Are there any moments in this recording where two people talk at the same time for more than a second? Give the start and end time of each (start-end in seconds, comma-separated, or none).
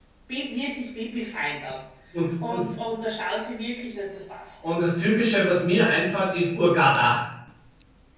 none